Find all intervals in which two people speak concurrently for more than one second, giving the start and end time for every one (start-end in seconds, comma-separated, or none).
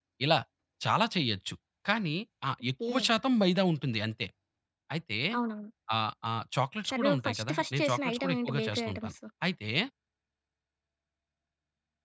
6.9-9.1